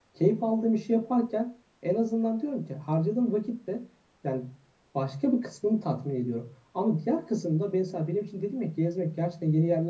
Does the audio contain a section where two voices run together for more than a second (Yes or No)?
No